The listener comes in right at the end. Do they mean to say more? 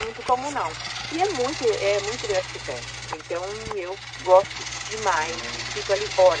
No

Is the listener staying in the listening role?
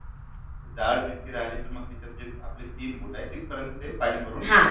No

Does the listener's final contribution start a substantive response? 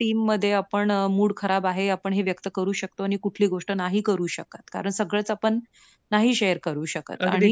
Yes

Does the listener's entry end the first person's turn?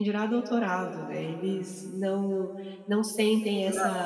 No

